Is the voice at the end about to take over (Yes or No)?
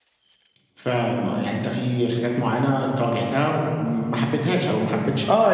Yes